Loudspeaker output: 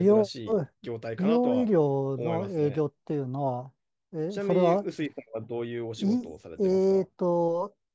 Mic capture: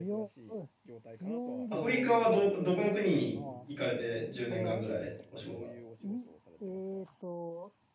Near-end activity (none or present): present